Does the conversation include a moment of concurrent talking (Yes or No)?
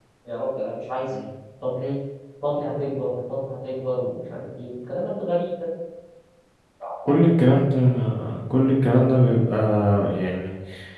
No